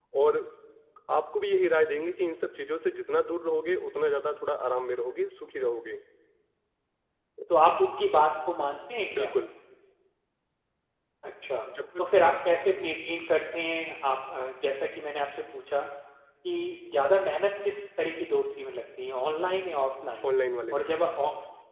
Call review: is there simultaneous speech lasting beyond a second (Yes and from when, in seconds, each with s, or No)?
No